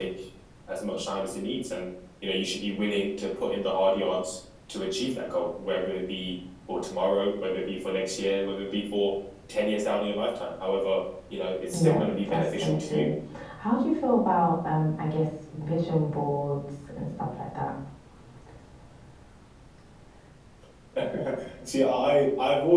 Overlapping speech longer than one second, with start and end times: 11.7-13.1

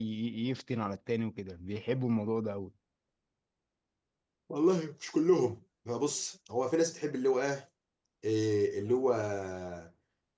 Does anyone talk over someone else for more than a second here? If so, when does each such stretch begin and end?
none

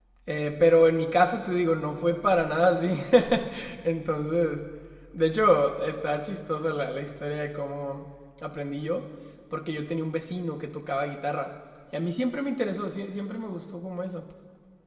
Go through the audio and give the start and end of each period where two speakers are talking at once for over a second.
none

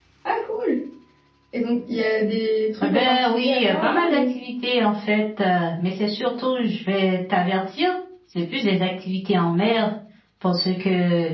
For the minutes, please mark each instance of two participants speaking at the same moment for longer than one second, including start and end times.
2.8-4.3

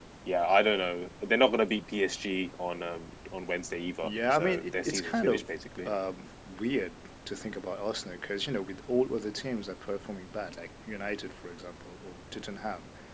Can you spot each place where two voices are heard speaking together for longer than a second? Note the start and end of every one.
4.0-5.4

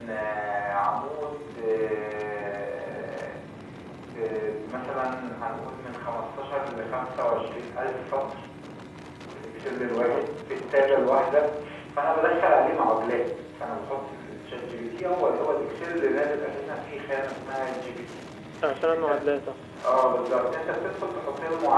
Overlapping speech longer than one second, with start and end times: none

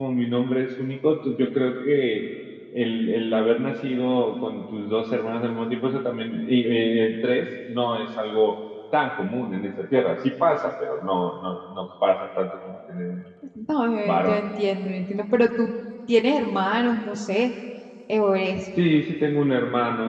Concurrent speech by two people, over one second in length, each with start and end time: none

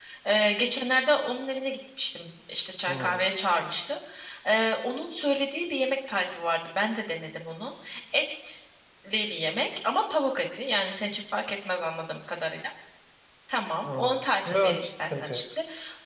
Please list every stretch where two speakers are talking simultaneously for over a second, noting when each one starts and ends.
13.8-15.4

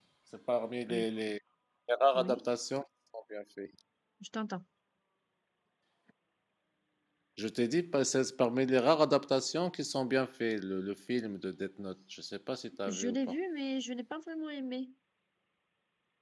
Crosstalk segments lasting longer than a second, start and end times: none

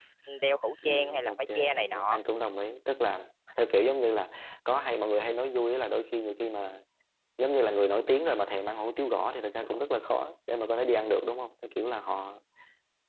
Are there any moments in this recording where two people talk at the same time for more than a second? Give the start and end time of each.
0.8-2.2

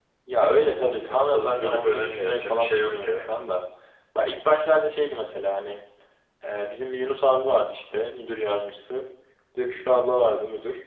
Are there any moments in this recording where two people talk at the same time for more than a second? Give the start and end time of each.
0.7-3.3

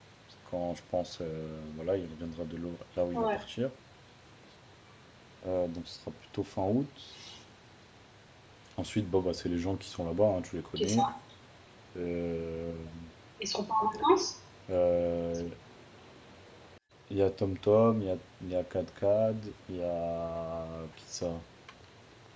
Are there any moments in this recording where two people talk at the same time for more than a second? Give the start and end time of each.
none

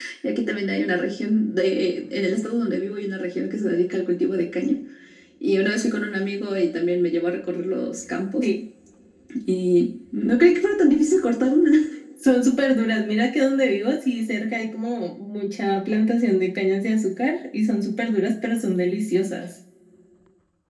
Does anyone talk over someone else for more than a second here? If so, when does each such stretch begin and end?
none

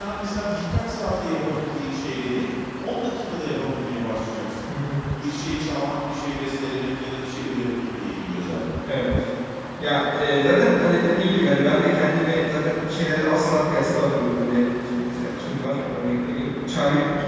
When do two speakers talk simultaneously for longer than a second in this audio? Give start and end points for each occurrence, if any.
none

